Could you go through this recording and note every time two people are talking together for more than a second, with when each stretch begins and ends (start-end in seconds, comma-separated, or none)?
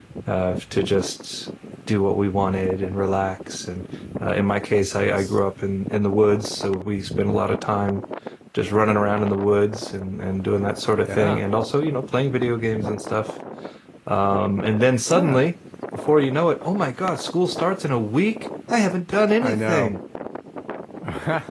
none